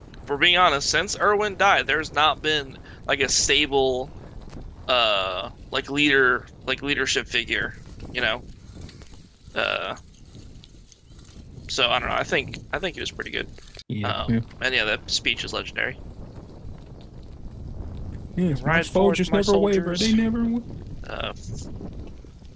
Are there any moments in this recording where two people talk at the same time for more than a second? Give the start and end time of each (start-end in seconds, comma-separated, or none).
18.5-20.1